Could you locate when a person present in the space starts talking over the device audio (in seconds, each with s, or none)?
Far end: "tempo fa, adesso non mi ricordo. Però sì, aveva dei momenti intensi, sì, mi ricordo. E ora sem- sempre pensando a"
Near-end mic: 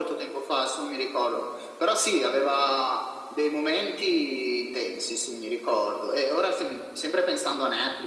none